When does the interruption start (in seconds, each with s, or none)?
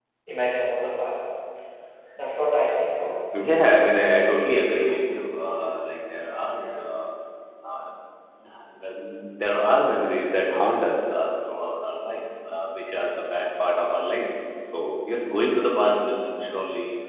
none